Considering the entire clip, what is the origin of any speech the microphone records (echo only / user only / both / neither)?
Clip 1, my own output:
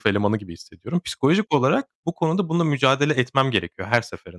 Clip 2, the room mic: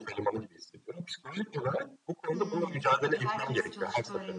both